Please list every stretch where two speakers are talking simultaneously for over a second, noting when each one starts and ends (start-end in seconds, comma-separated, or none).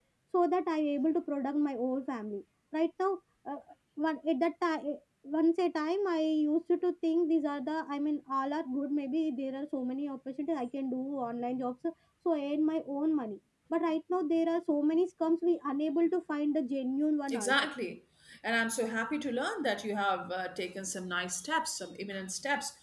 none